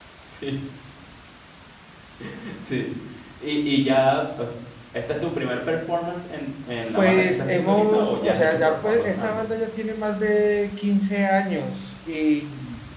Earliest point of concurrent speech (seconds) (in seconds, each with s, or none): 7.0 s